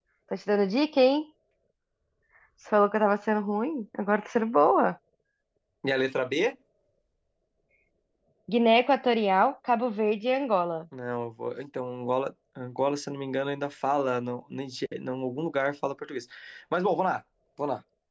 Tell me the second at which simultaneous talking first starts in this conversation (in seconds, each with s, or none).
none